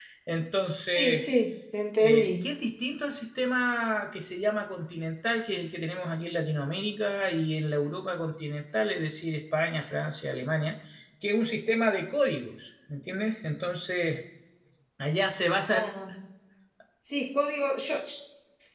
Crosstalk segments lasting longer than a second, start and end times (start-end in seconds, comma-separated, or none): none